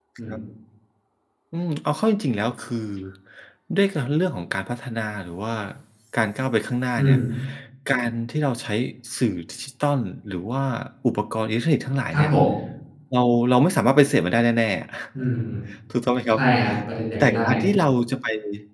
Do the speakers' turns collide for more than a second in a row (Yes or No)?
No